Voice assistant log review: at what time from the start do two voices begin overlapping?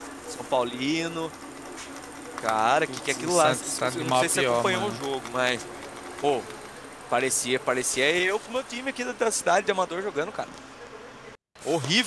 2.9 s

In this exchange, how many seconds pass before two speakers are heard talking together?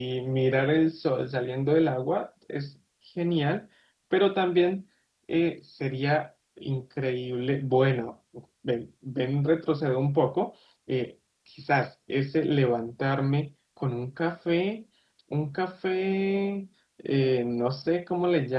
none

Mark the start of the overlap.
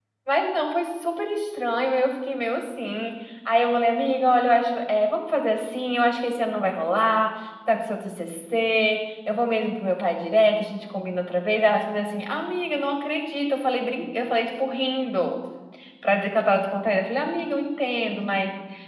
none

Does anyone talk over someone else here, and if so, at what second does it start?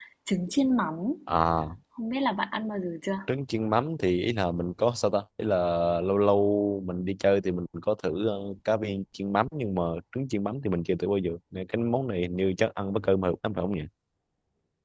none

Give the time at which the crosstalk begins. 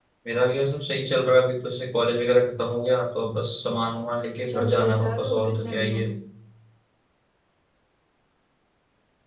4.4 s

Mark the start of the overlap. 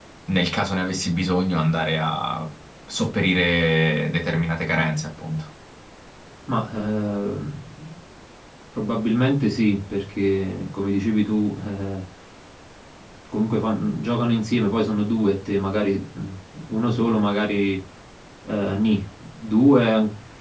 none

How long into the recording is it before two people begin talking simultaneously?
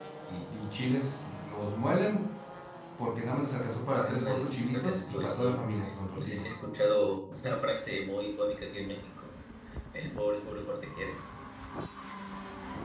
4.0 s

